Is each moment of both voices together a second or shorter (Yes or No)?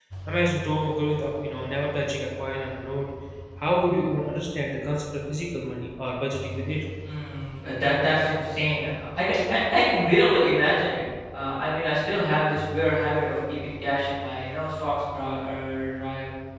Yes